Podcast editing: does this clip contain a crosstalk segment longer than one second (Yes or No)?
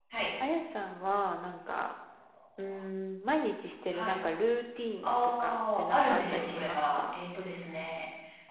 Yes